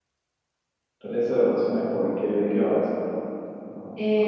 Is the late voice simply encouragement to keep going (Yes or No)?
No